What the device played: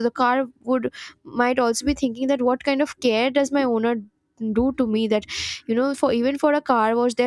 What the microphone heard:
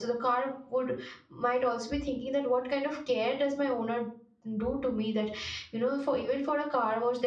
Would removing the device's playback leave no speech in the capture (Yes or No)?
Yes